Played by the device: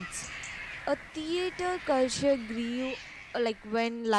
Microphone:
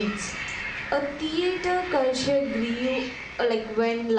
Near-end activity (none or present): none